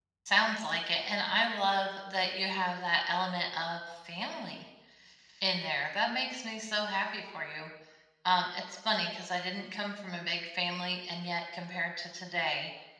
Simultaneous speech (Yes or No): No